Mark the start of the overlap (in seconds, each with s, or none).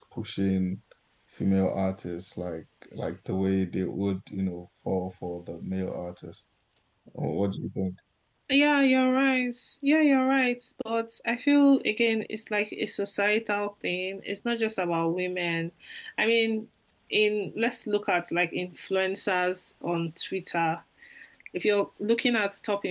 none